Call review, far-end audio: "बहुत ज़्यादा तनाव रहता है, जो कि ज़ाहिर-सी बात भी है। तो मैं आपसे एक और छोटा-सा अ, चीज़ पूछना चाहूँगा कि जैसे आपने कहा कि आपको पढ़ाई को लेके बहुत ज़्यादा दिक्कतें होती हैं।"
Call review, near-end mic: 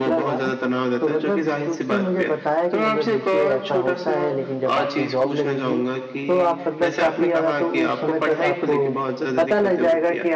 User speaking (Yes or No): Yes